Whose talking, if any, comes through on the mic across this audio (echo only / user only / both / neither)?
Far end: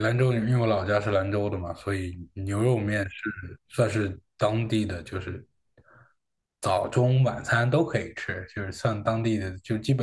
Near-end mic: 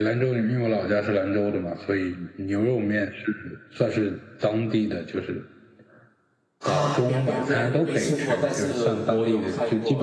both